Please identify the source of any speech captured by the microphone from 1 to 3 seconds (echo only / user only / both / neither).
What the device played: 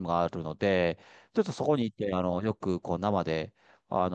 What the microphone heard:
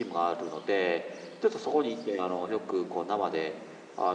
echo only